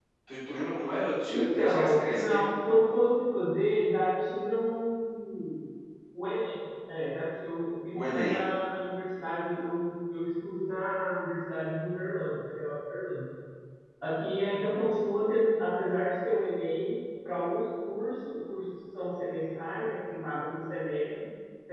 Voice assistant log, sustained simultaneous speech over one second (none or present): present